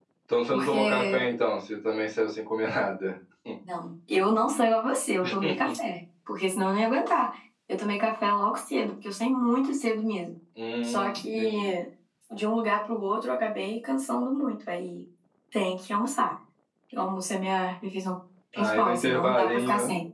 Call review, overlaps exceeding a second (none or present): present